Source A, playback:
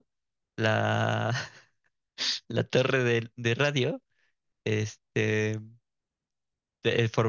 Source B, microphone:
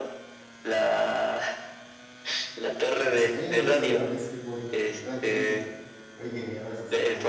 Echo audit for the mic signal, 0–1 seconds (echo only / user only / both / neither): echo only